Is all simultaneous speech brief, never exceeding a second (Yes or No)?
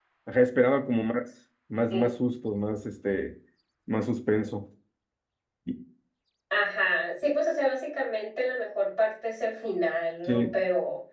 Yes